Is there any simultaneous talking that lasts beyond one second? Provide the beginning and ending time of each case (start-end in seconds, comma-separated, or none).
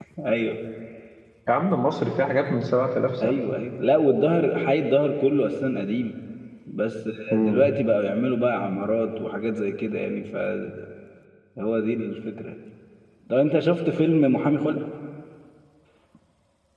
none